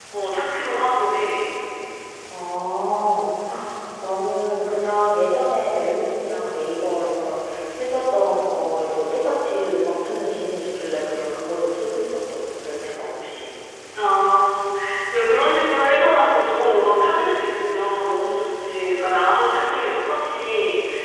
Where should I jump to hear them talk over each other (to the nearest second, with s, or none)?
none